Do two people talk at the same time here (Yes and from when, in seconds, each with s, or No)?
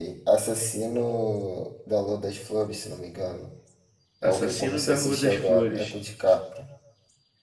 Yes, from 4.2 s